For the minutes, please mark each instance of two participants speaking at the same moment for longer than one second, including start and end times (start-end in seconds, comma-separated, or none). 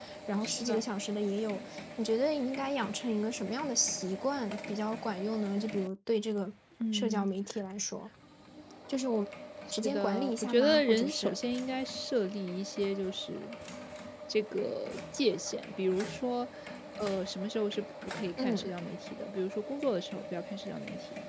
9.8-11.4